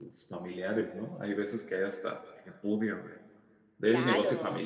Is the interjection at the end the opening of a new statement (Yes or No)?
No